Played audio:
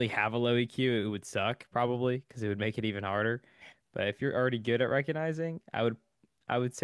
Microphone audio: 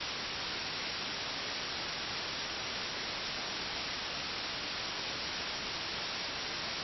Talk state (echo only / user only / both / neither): neither